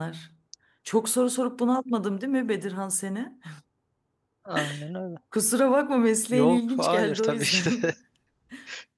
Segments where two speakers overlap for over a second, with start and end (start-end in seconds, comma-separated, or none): 6.3-7.8